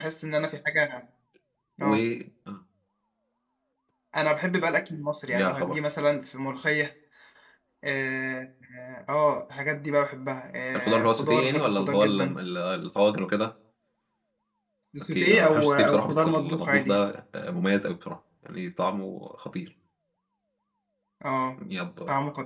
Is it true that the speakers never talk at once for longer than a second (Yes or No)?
No